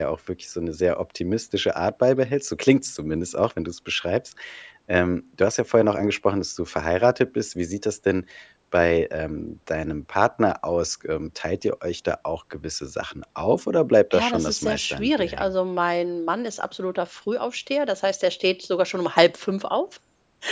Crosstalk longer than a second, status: present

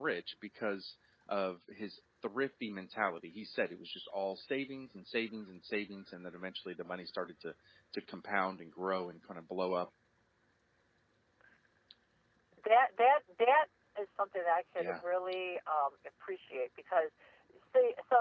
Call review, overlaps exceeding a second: none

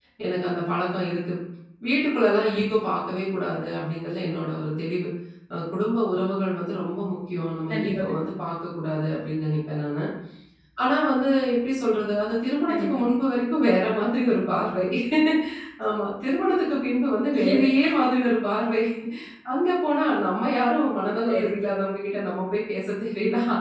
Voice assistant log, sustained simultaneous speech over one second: none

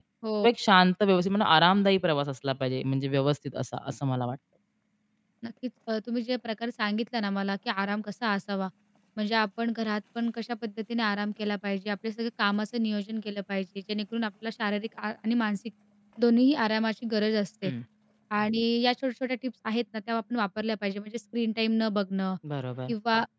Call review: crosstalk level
none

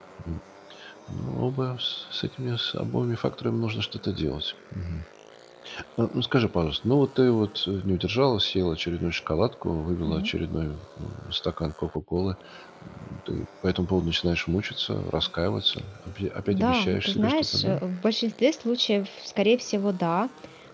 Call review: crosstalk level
present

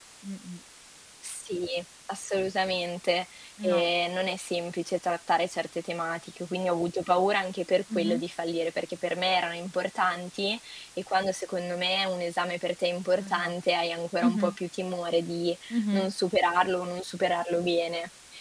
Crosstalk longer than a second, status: none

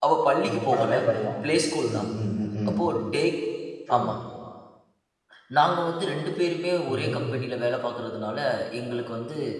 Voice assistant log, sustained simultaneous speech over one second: none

